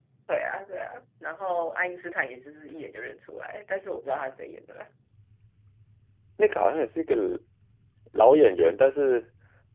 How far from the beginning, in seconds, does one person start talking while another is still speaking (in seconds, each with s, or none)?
none